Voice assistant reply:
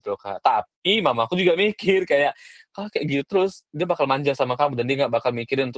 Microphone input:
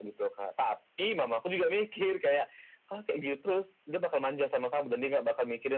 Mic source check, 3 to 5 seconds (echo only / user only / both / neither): echo only